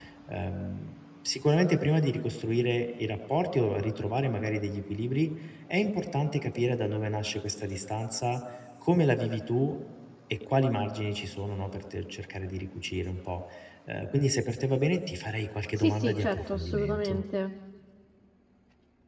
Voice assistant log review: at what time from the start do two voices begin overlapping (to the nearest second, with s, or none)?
16 s